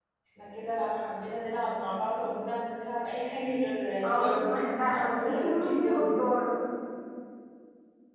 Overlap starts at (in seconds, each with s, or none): 4.0 s